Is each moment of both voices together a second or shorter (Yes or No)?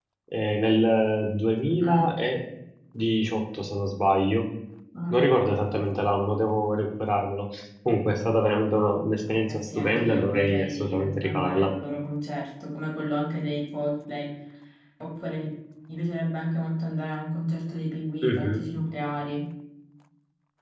No